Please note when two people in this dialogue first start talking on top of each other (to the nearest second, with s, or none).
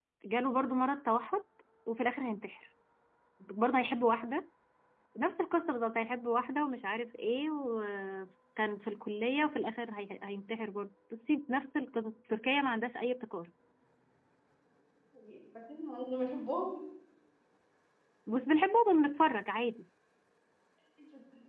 none